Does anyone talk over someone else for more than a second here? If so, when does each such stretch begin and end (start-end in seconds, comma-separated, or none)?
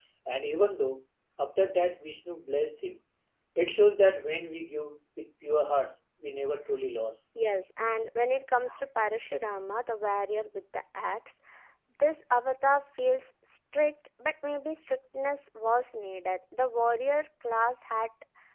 none